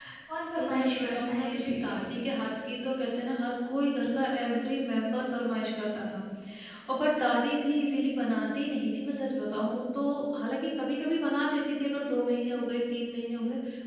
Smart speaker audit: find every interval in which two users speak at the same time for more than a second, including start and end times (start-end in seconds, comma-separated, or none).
0.6-2.2